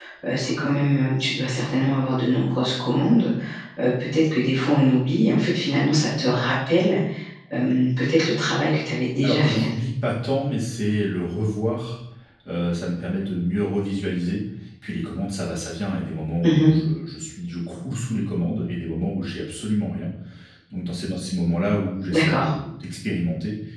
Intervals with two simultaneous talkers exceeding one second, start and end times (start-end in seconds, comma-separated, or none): none